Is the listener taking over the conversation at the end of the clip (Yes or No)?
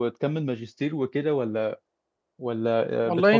Yes